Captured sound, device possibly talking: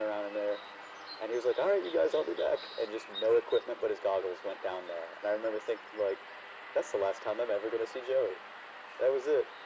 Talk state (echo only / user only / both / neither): echo only